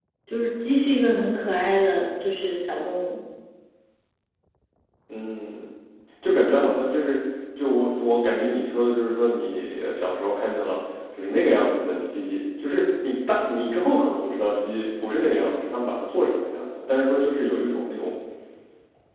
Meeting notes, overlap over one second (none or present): none